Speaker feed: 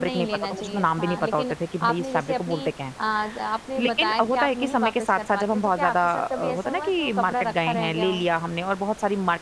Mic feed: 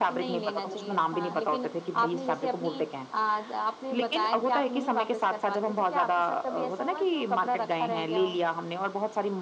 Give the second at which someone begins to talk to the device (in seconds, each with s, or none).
none